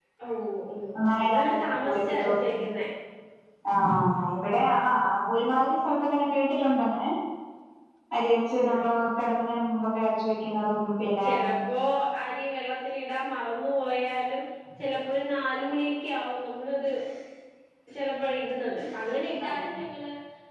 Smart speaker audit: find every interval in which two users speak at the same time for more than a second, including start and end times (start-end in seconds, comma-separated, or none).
1.1-2.4